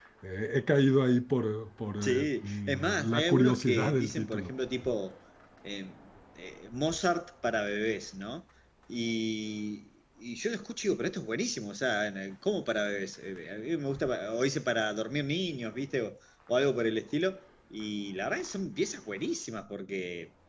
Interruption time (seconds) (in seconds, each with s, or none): 2.0 s